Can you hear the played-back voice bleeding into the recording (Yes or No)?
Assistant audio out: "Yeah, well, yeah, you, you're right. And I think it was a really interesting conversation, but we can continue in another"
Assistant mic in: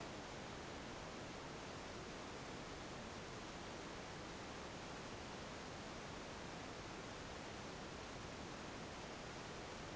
No